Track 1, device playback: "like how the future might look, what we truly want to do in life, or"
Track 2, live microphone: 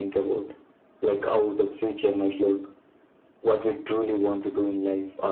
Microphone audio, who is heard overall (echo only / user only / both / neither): echo only